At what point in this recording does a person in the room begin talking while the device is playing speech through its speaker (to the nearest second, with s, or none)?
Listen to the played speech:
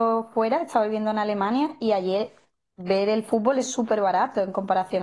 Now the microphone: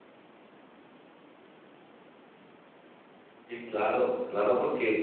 3 s